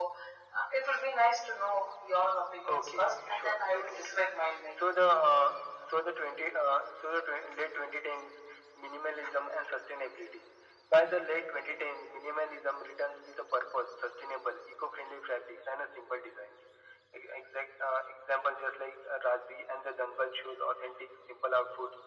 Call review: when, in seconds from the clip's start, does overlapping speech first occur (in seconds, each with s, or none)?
2.7 s